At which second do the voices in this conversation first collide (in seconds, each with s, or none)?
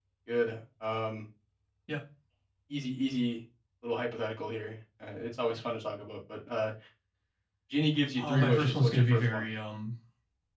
8.2 s